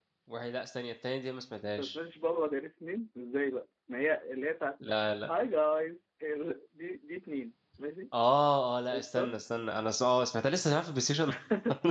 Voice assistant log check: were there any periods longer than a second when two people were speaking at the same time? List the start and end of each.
none

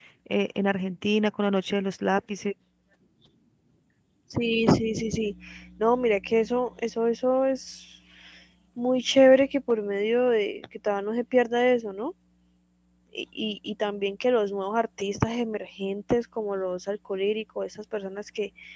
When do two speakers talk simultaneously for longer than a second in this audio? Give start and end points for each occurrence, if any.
none

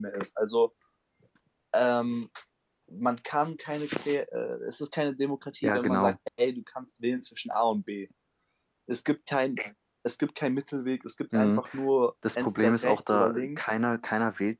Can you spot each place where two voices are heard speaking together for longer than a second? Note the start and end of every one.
12.4-13.6

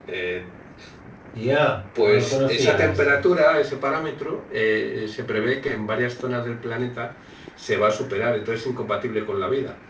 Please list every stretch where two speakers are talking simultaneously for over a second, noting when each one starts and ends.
2.0-3.2

